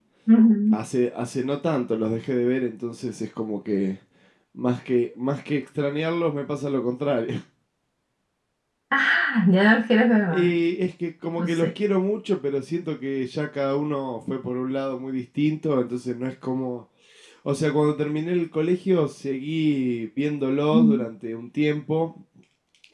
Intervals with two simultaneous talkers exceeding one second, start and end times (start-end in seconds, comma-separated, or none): none